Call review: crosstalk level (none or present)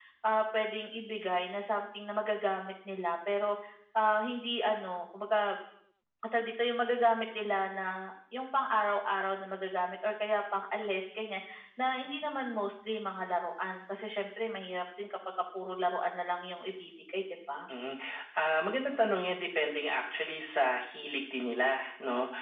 none